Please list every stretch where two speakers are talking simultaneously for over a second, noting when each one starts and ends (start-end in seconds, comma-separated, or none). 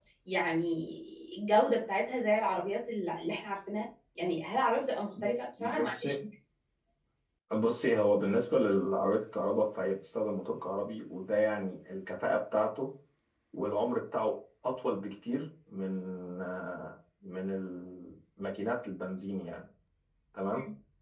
none